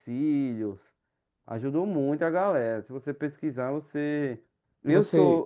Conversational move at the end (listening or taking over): listening